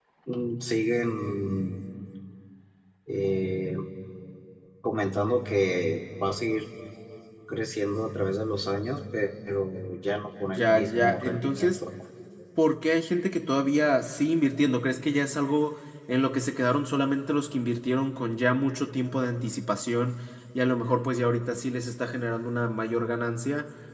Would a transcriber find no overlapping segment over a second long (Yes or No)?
No